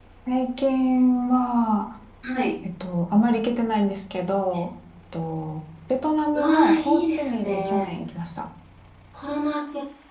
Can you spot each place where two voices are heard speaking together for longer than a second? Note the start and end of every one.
6.3-7.9

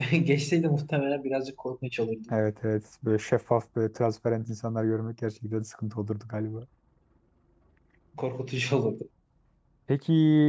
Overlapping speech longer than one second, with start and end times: none

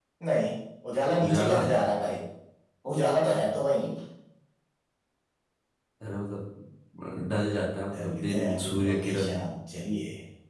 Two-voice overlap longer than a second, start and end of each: 7.9-9.3

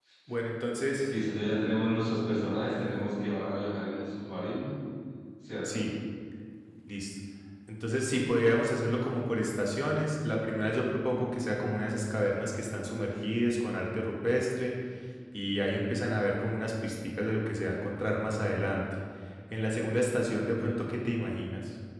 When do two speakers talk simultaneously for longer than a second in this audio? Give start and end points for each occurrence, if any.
none

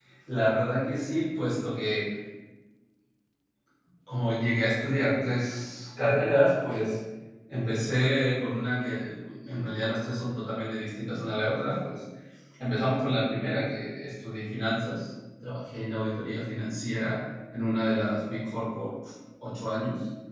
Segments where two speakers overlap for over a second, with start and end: none

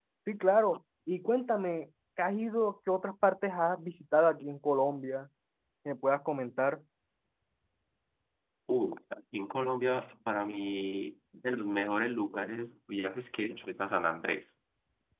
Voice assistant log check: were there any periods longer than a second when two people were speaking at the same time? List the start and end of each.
none

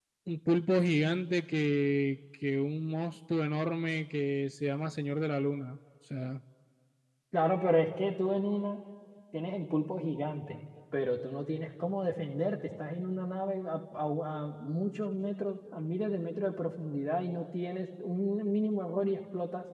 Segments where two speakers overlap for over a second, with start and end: none

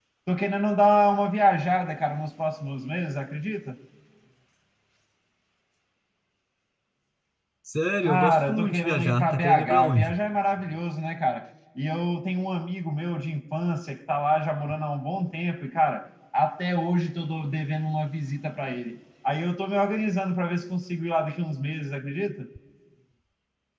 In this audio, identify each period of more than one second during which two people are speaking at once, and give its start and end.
8.0-10.2

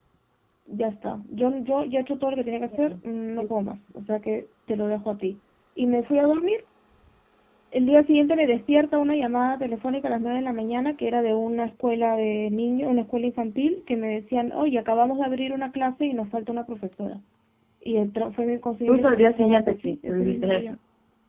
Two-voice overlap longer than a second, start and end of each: 18.9-20.7

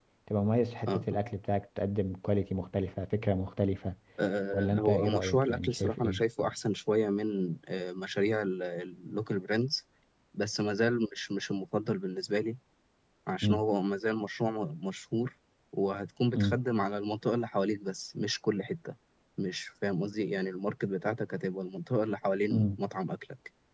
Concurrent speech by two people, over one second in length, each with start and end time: 4.5-6.2

